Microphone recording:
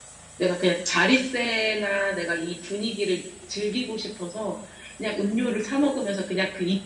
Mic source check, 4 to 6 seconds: echo only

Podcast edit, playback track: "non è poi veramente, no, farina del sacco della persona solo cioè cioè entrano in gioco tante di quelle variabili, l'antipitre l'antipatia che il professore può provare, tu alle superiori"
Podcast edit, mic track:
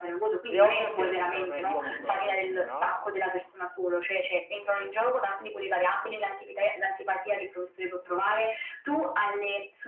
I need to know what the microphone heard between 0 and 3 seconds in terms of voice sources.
both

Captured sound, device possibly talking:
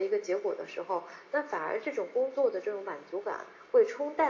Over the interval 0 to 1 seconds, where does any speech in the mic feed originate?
echo only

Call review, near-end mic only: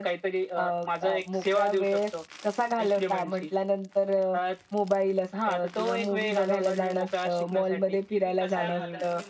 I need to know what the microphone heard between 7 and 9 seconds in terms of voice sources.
both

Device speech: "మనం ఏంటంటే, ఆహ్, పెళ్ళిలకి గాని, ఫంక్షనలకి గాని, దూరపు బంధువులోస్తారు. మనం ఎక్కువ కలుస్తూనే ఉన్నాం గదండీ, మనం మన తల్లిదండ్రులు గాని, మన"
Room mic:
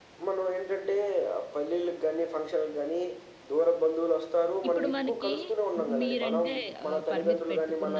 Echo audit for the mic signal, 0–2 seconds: echo only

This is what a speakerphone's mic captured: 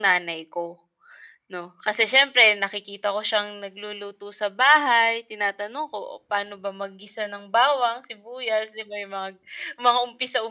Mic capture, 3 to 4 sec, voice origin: echo only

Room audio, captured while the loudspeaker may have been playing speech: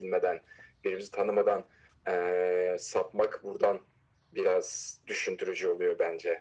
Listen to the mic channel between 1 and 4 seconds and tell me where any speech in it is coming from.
echo only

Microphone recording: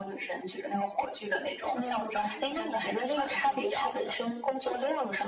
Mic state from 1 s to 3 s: echo only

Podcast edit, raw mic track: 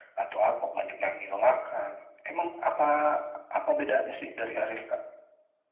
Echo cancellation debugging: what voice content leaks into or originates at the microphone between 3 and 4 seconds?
echo only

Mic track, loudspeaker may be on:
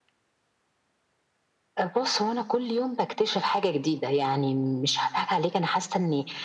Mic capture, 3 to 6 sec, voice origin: echo only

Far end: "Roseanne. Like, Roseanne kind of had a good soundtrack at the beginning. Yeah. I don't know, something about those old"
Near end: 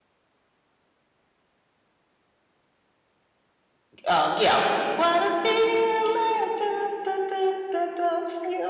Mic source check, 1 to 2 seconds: neither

